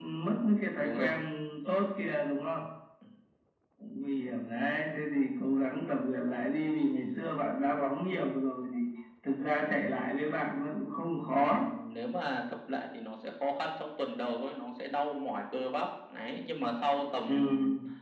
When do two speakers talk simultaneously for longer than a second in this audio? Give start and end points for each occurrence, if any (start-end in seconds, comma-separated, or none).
none